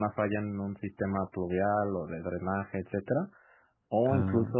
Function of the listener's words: listening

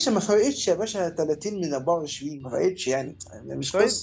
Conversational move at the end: taking over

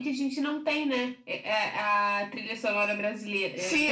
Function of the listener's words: taking over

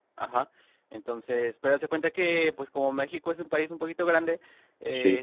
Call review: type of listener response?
listening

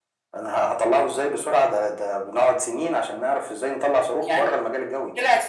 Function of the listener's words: taking over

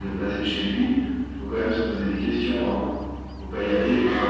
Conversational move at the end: taking over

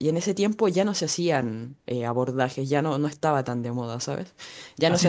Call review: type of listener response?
taking over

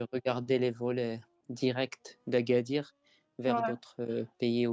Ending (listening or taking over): listening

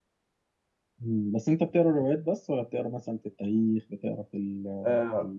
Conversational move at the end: taking over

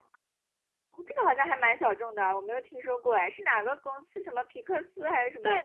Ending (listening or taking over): taking over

